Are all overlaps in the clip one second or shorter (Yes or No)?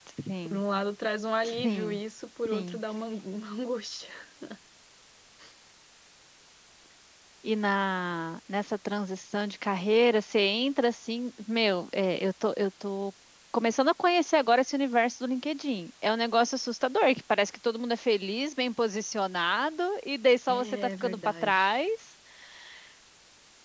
No